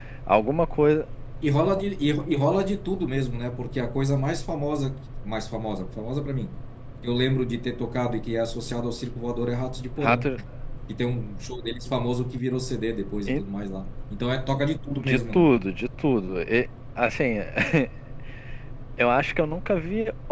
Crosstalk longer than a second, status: none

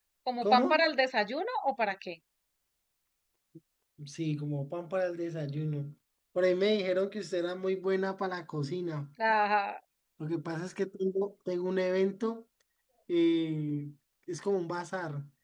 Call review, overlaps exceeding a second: none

